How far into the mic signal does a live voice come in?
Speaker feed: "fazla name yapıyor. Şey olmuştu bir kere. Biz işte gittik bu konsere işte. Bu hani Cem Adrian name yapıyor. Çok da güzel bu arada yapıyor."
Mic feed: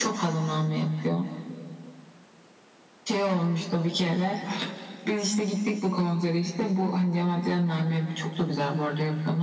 none

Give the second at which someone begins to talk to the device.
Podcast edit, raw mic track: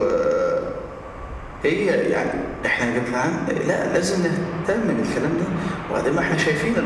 none

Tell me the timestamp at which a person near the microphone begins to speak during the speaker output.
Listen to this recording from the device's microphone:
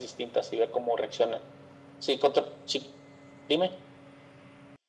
none

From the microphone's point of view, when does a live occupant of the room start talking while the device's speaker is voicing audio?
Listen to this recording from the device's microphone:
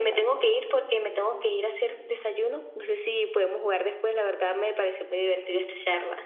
none

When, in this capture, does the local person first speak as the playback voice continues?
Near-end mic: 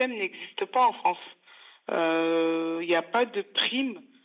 none

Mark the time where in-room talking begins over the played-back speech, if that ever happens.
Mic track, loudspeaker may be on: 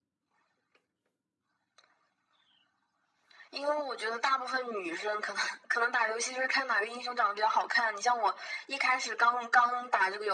none

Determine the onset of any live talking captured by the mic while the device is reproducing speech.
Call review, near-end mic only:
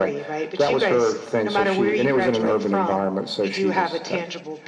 none

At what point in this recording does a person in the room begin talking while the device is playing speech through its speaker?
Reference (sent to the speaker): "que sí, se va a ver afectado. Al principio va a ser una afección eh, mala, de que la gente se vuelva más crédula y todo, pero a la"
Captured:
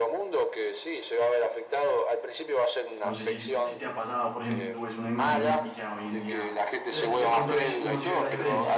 3.0 s

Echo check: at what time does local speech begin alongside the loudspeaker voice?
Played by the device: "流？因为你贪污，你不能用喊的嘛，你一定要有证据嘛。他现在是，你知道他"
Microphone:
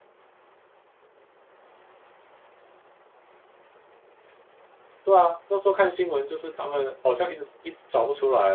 5.0 s

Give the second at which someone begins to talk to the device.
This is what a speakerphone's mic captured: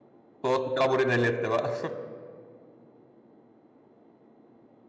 0.4 s

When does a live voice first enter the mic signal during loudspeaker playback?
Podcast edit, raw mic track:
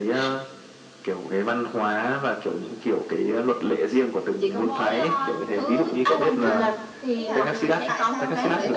6.3 s

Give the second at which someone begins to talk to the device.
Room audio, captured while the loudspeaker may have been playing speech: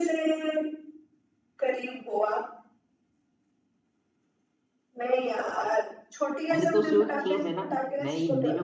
6.5 s

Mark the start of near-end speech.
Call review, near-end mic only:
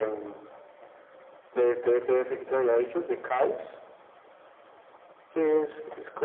none

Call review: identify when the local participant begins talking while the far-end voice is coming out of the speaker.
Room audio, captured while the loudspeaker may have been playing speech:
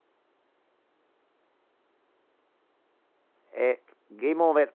3.4 s

